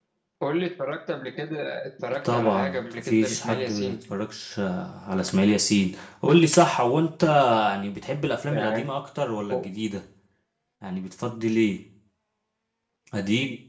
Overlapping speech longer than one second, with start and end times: 2.3-4.0

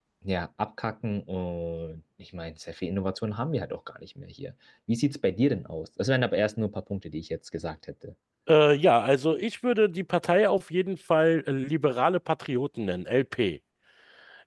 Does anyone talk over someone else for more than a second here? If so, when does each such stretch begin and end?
none

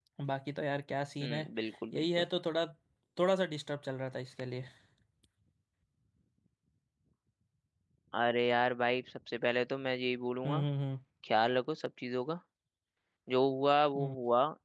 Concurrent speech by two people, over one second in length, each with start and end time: none

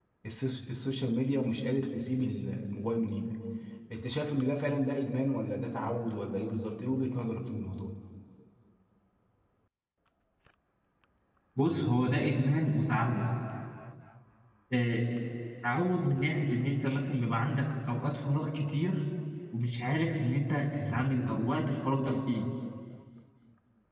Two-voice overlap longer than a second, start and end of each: none

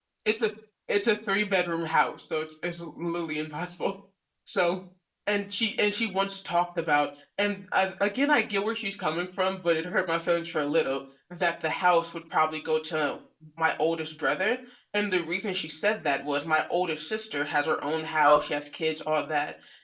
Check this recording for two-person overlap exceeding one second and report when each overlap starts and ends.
none

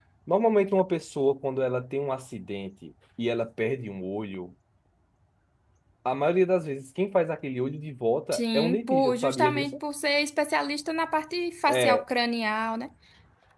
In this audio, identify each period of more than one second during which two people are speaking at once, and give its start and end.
8.3-9.8

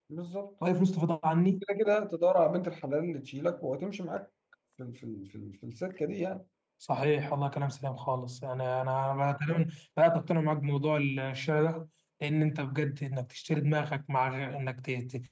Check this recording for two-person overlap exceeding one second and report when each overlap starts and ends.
none

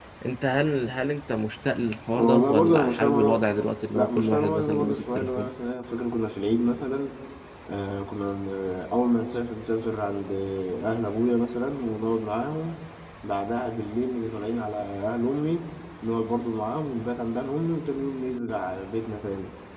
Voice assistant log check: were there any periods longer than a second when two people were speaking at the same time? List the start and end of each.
2.1-3.4, 3.9-5.5

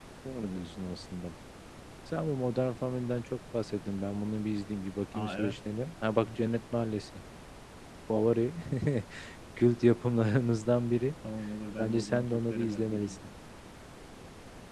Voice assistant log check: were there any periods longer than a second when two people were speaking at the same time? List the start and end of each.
11.8-13.2

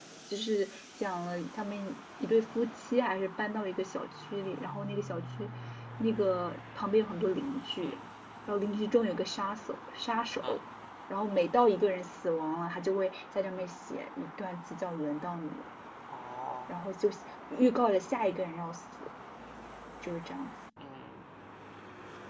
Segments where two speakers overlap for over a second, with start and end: none

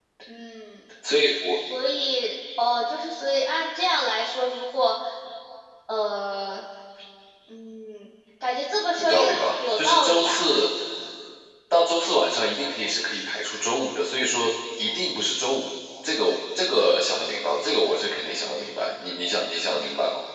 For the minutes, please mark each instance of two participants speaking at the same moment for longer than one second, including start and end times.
9.0-10.4

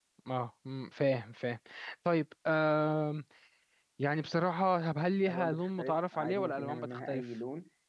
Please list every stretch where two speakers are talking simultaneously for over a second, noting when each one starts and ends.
5.3-7.2

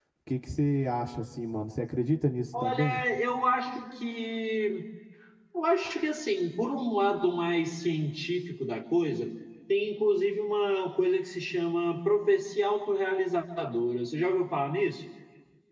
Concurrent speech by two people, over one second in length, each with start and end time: none

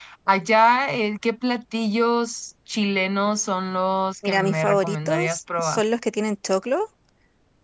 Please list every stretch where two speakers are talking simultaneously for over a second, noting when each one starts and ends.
4.2-5.8

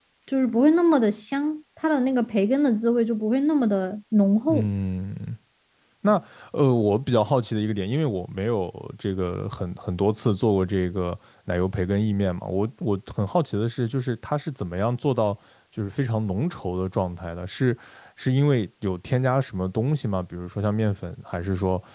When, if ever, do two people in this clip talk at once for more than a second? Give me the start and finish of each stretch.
none

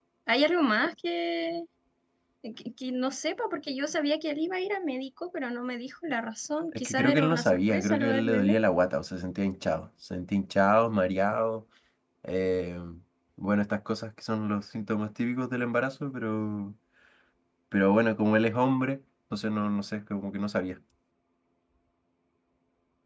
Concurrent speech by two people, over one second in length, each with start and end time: 6.7-8.6

